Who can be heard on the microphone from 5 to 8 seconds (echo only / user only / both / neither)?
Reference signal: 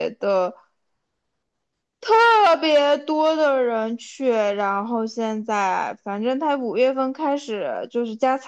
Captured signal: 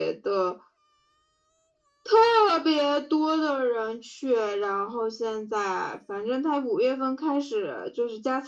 echo only